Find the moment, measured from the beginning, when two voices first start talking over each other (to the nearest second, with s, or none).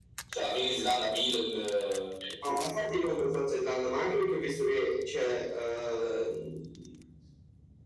none